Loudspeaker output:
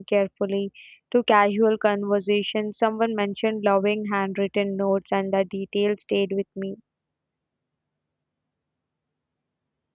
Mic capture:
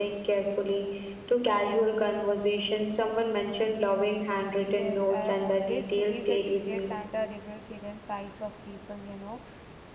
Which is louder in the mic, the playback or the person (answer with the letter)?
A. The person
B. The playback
B